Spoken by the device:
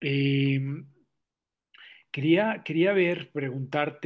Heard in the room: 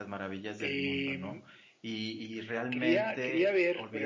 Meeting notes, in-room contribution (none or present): present